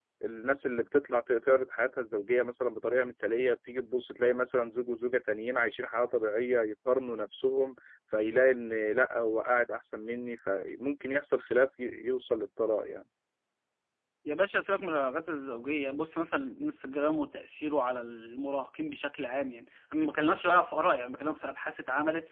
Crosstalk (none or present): none